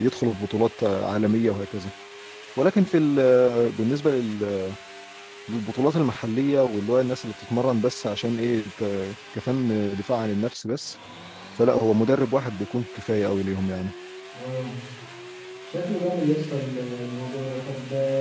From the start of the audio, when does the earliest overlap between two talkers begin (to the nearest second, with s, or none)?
none